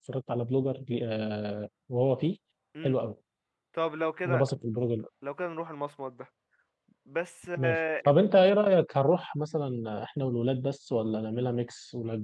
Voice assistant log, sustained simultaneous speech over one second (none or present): none